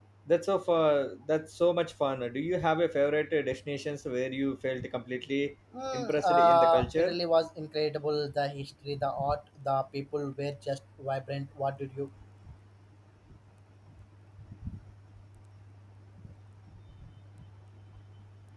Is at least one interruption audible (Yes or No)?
Yes